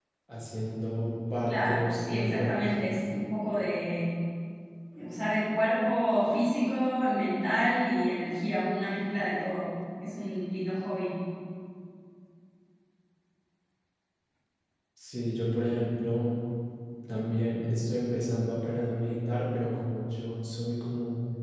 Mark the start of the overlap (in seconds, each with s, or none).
1.5 s